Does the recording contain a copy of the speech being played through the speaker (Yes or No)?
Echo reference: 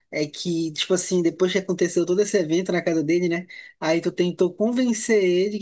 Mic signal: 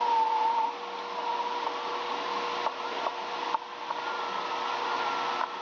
No